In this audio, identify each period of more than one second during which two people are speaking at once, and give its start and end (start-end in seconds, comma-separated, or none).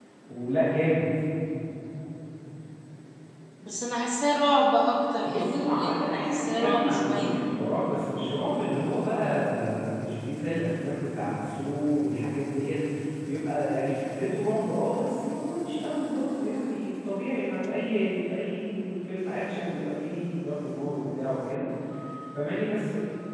5.2-7.3